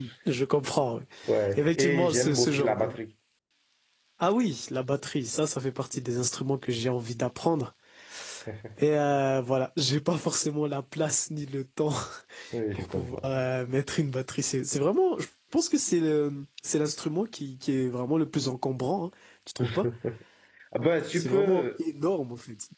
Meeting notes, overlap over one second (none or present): present